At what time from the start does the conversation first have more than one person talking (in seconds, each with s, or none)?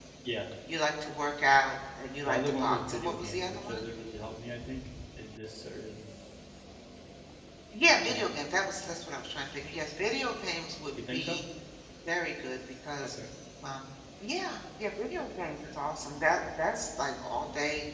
2.2 s